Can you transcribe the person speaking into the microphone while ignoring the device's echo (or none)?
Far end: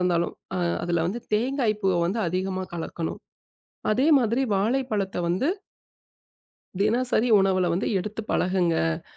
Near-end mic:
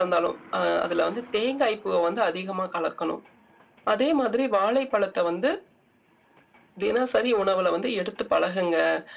none